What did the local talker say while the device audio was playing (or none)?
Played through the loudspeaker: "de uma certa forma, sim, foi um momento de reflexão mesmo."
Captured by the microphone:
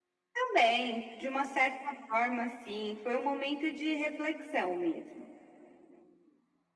none